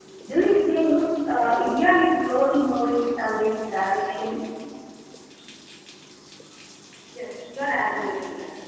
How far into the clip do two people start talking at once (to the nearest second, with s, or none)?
none